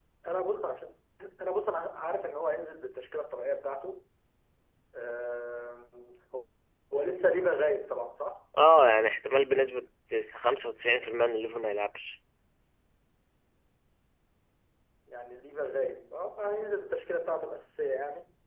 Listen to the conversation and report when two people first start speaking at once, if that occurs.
none

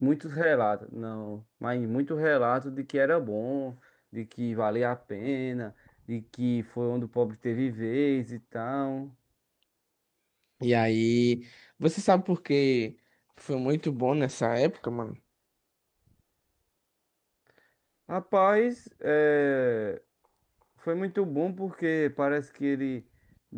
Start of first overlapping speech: none

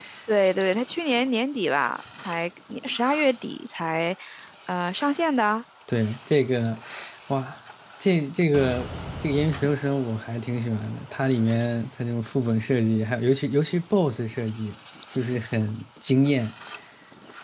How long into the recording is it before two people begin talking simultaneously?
none

